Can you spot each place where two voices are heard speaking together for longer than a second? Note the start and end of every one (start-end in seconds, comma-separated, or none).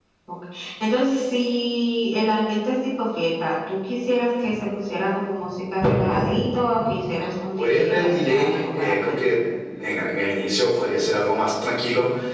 7.6-9.2